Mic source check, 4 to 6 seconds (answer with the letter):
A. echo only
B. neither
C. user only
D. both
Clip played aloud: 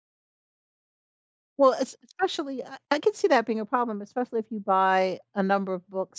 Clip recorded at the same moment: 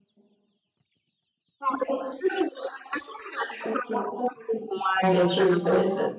D